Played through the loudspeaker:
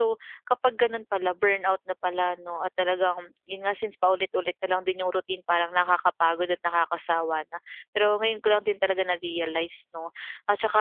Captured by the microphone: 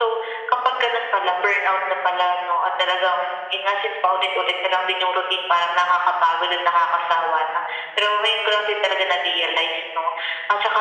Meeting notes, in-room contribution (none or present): none